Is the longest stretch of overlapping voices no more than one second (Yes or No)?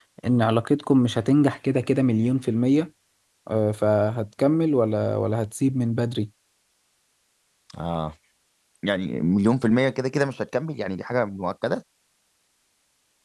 Yes